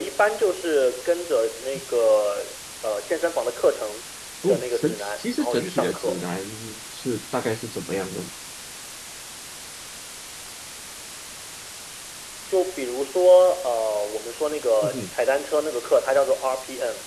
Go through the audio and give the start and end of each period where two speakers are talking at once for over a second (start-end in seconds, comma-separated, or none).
4.5-6.2